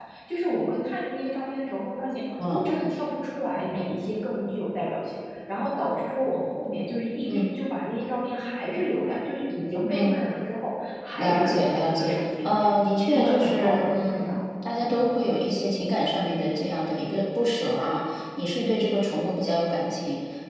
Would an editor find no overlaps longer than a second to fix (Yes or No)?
No